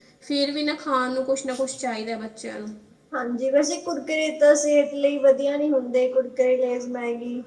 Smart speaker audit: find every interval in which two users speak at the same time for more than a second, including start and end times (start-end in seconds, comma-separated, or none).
none